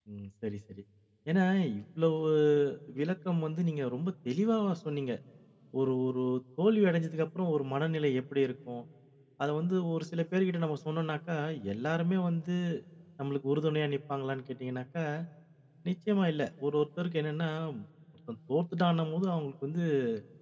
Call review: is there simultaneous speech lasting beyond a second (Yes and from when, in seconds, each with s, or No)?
No